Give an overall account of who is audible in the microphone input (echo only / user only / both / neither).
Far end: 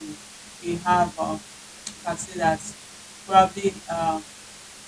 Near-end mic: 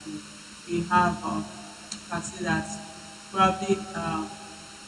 echo only